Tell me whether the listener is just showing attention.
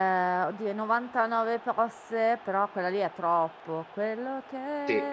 Yes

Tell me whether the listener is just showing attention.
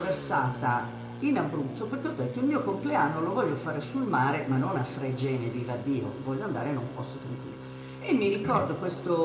Yes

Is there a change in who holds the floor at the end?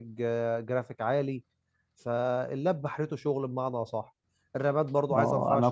Yes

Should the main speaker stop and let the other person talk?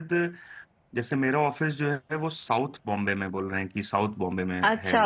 Yes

